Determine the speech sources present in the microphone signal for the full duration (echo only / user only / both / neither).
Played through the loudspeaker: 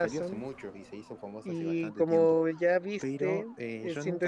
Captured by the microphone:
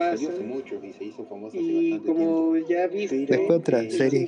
both